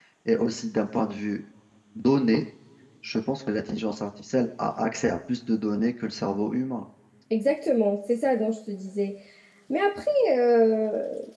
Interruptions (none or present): none